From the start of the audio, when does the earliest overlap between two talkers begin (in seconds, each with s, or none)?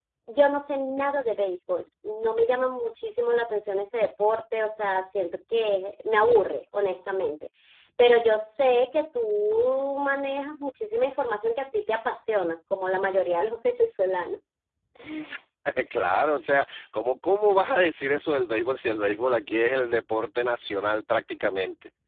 none